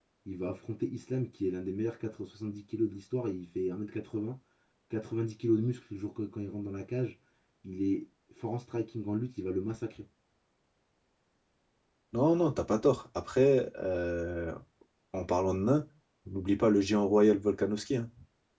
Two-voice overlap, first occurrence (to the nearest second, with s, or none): none